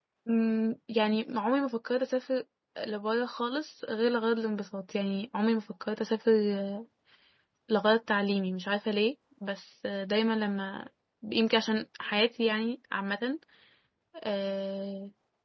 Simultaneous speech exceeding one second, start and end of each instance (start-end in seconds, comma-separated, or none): none